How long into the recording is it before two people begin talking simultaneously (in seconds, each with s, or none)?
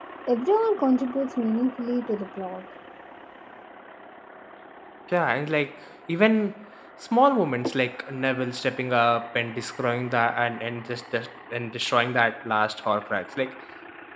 none